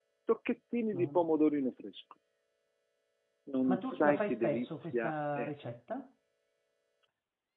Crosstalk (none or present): present